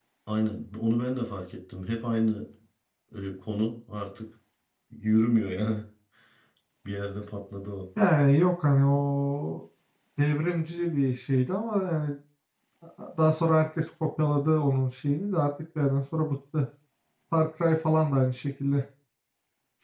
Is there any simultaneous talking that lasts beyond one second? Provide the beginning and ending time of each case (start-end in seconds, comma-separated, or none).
none